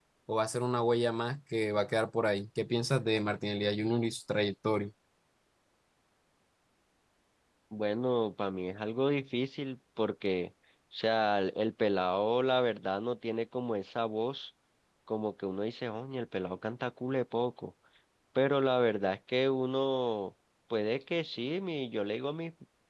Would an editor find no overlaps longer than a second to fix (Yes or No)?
Yes